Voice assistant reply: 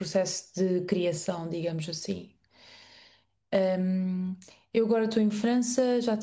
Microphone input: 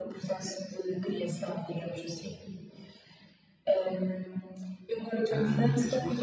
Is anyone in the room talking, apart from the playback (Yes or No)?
Yes